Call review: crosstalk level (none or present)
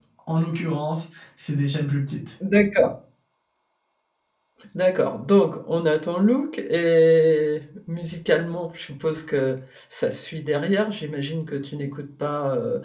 none